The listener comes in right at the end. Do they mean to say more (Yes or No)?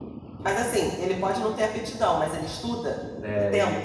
Yes